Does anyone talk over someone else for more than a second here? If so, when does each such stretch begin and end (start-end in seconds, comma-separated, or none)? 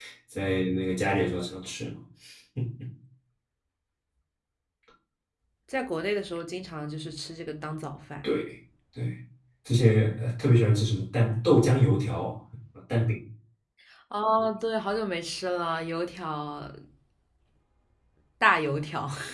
none